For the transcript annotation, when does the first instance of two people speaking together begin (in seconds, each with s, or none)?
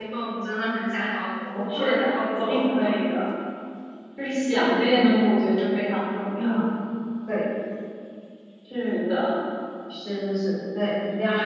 1.7 s